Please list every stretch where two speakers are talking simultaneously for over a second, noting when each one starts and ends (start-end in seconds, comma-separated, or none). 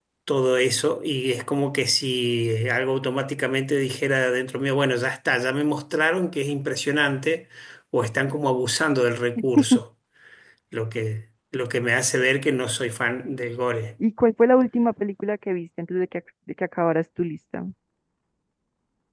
none